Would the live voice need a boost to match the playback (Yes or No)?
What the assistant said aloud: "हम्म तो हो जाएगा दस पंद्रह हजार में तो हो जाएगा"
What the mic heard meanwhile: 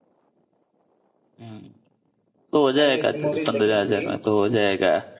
Yes